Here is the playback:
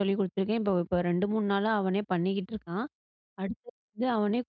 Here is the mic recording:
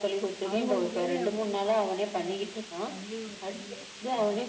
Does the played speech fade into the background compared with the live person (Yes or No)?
No